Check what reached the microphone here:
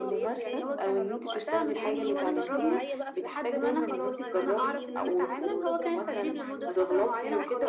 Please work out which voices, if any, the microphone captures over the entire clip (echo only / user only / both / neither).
both